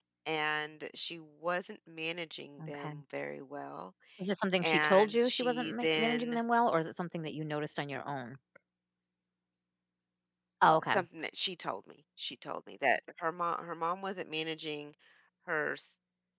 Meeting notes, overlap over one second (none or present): present